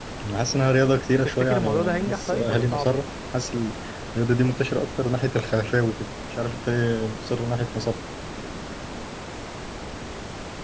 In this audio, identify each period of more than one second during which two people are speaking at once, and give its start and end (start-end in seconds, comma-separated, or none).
1.2-3.0